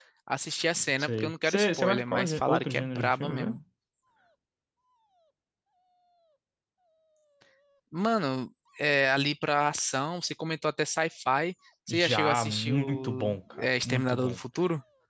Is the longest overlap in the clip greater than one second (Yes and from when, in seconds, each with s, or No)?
Yes, from 1.0 s